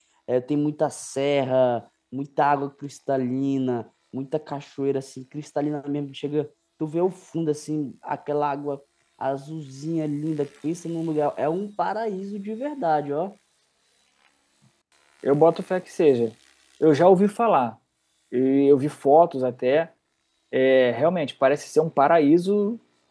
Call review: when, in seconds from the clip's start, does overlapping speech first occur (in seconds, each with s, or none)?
none